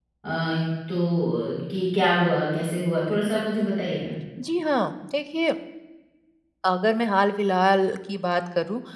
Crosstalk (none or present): none